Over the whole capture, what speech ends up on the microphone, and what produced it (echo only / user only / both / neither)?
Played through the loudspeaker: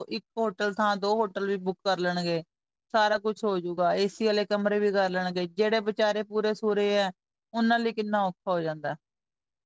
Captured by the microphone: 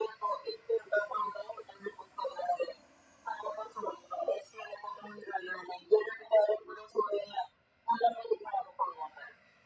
echo only